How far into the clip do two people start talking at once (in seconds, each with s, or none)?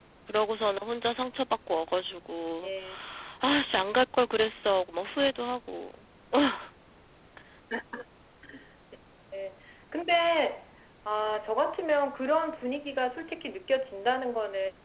none